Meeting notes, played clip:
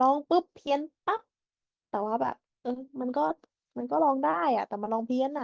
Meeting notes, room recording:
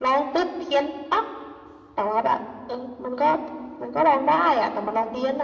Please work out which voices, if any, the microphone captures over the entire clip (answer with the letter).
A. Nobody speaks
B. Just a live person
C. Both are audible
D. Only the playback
D